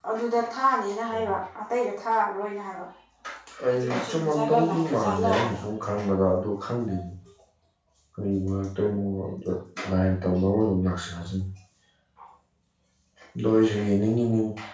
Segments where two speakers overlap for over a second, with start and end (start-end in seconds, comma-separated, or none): 3.7-5.6